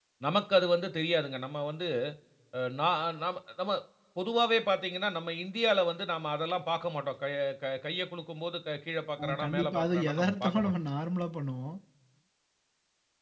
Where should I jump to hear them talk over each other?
9 s

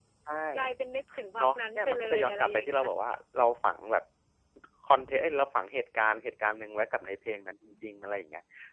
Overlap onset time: 1 s

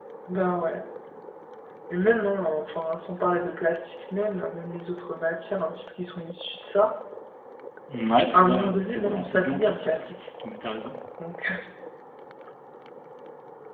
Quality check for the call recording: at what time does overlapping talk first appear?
8 s

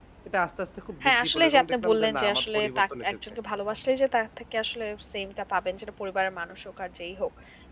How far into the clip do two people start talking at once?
1 s

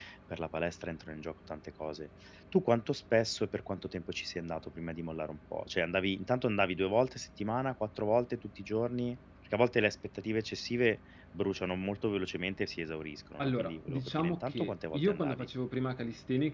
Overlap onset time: 13 s

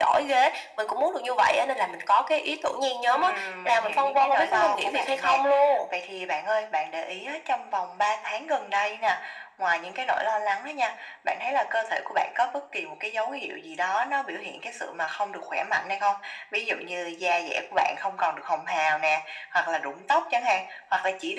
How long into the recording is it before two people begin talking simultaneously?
3 s

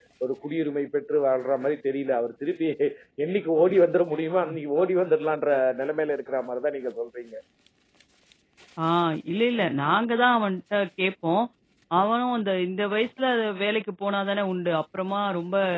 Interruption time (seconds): none

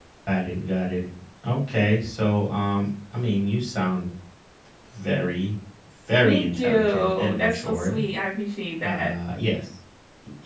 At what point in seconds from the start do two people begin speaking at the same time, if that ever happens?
6 s

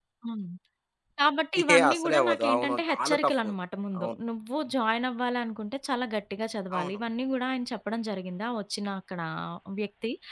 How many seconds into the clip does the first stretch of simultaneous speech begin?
2 s

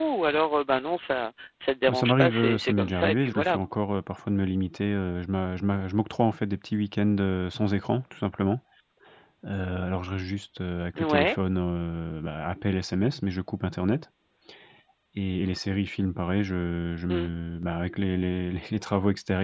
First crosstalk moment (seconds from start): 2 s

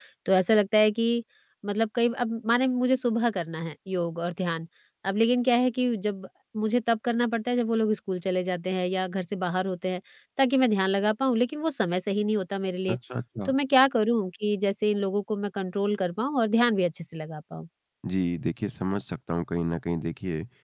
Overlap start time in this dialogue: none

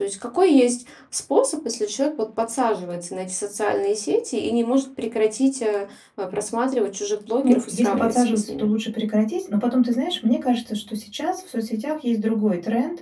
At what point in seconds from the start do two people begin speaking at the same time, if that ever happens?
7 s

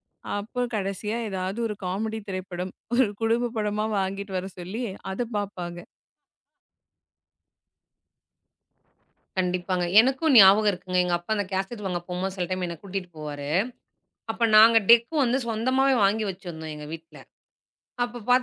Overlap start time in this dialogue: none

